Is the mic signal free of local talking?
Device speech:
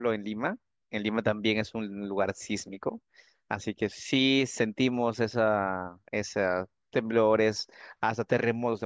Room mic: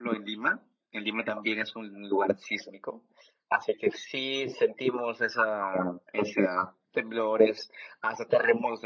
Yes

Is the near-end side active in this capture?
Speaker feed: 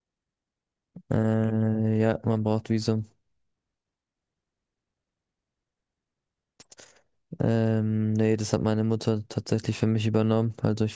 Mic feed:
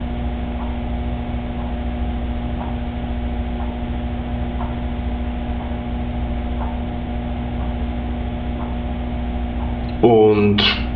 Yes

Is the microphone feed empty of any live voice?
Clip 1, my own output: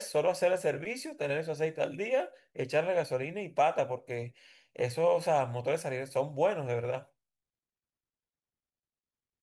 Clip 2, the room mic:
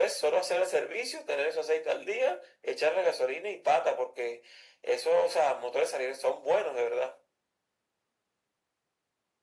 Yes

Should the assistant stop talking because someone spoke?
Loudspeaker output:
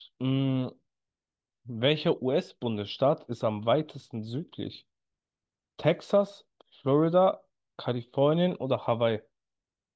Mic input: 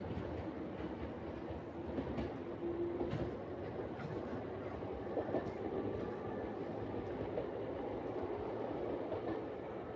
No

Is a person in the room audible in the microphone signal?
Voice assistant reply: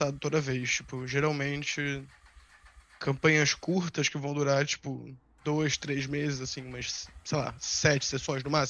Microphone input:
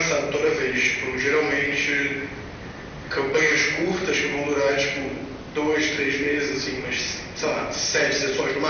No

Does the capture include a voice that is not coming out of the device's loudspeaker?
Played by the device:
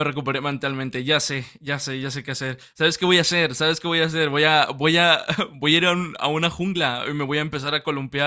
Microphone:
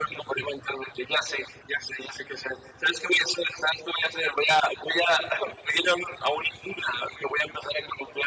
No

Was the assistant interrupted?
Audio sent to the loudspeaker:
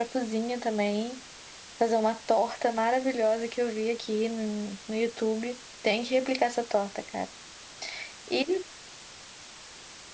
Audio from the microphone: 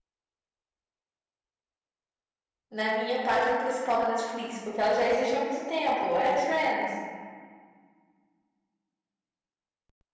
Yes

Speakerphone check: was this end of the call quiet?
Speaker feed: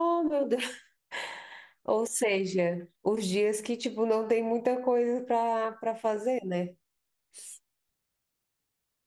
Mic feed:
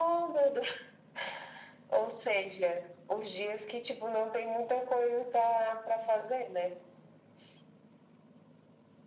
Yes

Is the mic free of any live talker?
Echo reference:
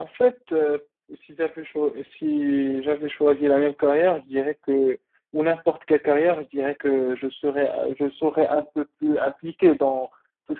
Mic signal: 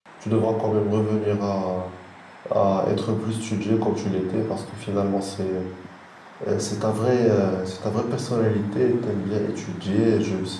No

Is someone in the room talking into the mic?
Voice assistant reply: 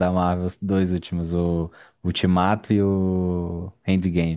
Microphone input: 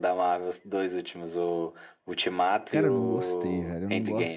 Yes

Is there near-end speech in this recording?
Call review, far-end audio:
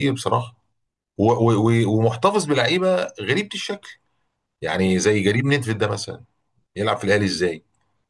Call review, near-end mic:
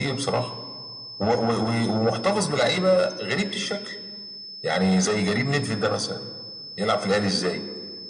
No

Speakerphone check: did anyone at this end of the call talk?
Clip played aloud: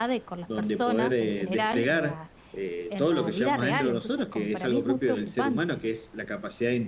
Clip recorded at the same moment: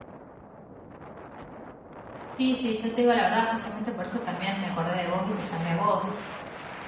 Yes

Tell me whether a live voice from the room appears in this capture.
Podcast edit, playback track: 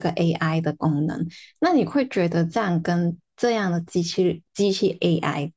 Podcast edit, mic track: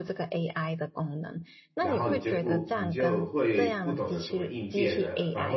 Yes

